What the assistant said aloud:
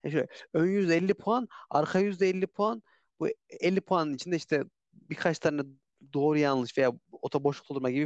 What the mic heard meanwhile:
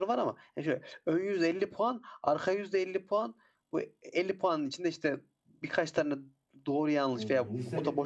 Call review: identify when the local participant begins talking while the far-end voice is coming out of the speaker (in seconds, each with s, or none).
7.1 s